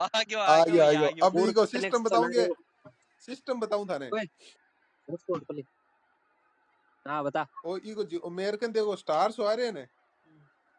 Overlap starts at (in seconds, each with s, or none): 0.5 s